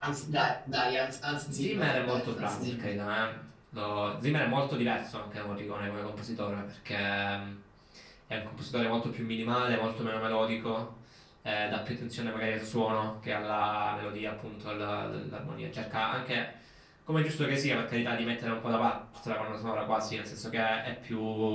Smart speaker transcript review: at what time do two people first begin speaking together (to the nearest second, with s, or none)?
1 s